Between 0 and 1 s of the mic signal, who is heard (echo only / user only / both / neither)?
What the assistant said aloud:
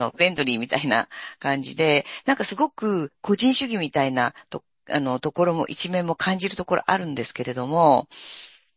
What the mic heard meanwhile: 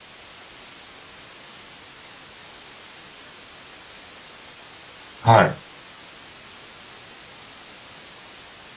neither